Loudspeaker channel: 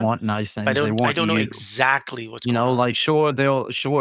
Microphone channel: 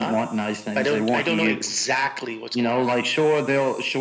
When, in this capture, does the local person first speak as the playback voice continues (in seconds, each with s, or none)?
none